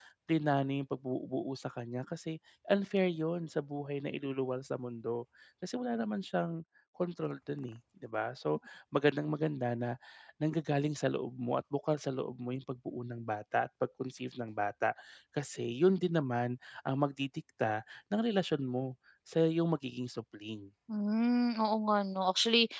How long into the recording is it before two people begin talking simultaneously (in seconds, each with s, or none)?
none